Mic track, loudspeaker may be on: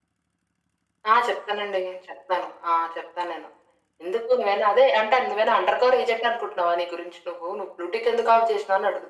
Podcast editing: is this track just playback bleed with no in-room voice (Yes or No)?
Yes